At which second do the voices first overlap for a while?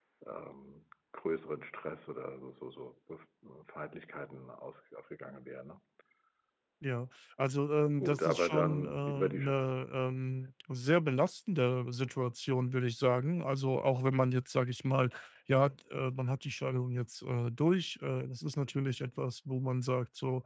8.0 s

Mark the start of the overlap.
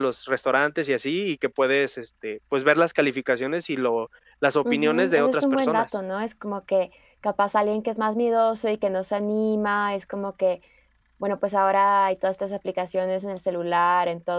4.6 s

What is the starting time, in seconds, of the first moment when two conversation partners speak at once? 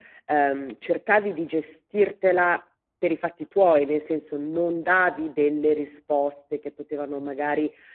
none

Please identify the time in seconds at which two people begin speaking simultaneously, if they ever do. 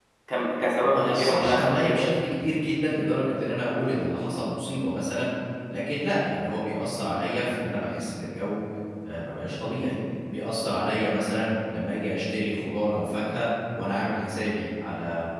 0.8 s

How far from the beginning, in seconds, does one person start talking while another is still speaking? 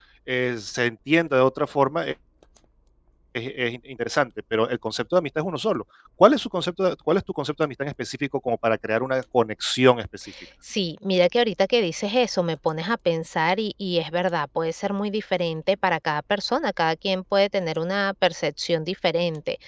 none

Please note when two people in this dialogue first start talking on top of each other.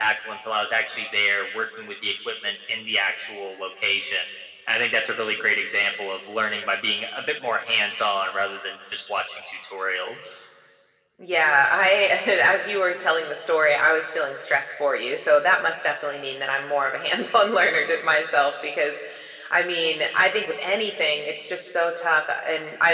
none

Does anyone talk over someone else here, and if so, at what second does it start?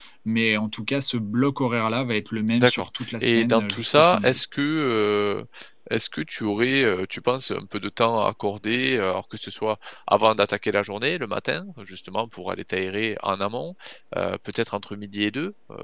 2.5 s

